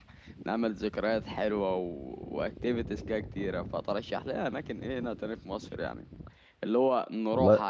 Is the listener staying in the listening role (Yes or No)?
Yes